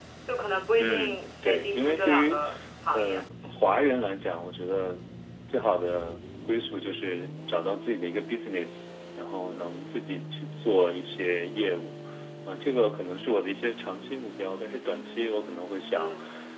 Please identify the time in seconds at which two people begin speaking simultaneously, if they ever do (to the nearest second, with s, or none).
1 s